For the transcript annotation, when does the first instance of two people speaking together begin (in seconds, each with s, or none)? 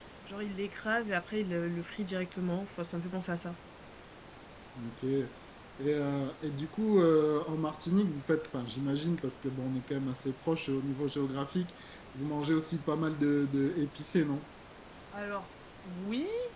none